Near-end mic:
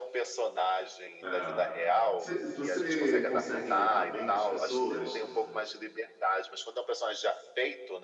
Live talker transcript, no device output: É. Cê- Você consegue imitar bem as pessoas?

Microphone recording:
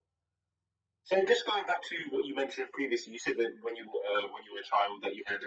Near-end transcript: none

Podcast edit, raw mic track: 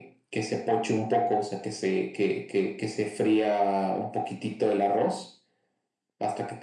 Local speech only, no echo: none

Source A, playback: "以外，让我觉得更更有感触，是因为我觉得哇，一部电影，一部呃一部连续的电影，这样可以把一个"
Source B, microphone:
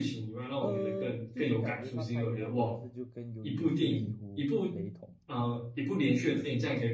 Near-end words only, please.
呃，就是感觉他拍的那模式就跟鱿鱼游戏几乎雷同。

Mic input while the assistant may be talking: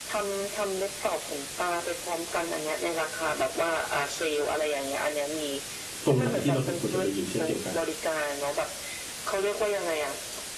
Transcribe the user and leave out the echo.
ตรงไหนที่เราสมควรจะไปอยู่เช่นเดียวกัน

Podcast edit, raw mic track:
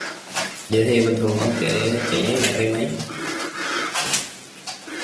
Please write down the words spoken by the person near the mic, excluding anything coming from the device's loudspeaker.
Vậy thì bình thường ông chạy chạy lại vay mấy

